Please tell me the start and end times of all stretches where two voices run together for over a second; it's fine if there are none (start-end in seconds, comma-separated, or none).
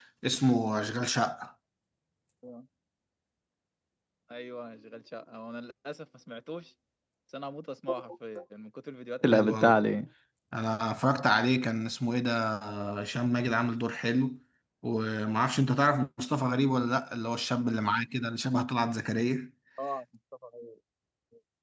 none